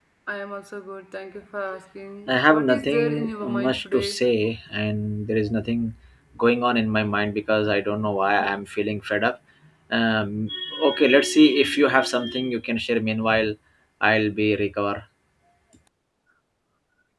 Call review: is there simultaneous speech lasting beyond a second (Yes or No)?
Yes